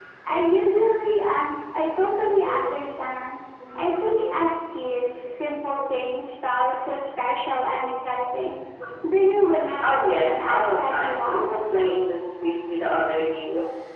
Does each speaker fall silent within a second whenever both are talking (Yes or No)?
No